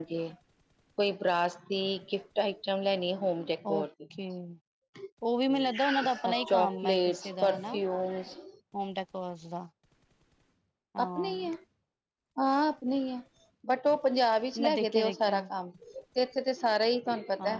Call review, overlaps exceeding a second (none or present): present